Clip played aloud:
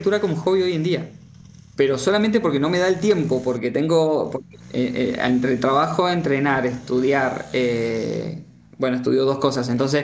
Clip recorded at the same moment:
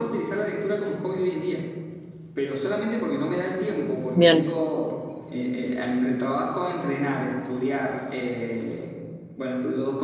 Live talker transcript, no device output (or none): Bien,